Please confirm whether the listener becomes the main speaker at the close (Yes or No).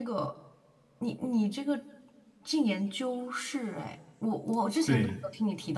No